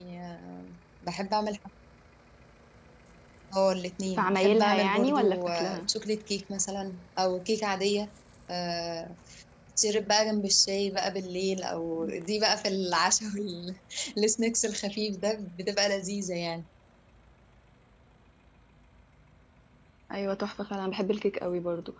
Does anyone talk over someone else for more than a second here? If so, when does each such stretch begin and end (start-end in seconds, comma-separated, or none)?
4.2-5.8